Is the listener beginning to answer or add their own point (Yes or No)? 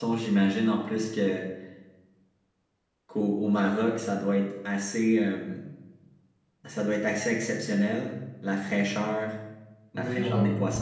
Yes